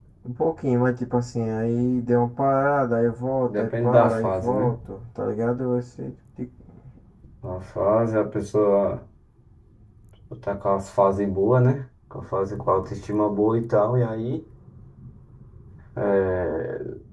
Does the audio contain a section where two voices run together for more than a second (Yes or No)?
Yes